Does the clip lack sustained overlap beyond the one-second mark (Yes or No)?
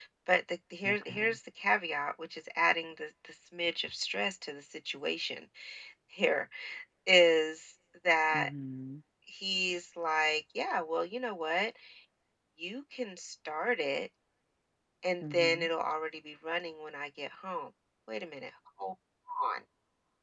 Yes